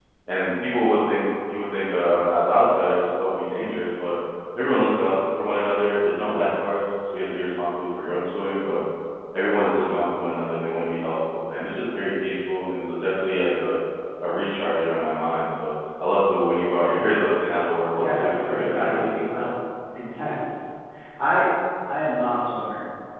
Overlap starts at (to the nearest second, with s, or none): 18 s